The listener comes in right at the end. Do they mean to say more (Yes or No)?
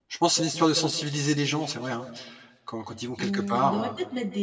Yes